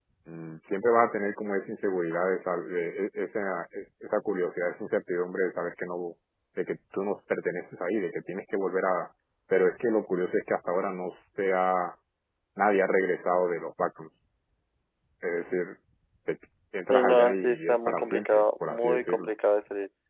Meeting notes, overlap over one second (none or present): present